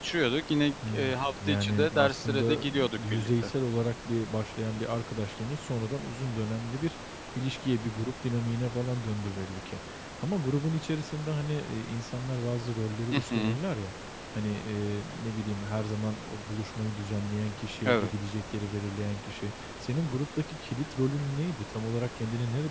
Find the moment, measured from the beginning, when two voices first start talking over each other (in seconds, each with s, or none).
0.9 s